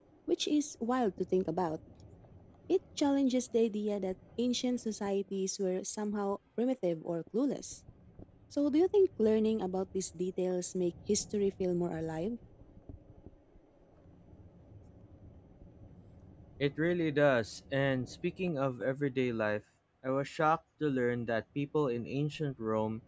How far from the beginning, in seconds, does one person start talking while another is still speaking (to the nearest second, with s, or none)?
none